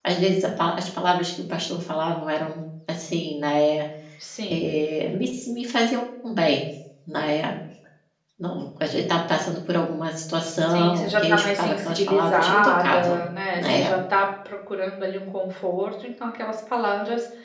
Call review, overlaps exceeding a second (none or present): present